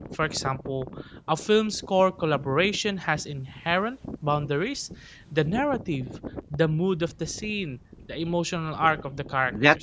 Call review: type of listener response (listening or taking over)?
taking over